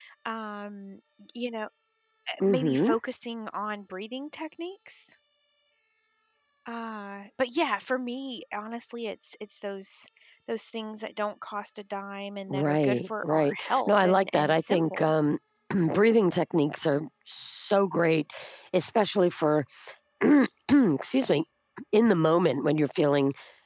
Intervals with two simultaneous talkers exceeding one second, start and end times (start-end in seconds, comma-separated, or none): 12.5-15.1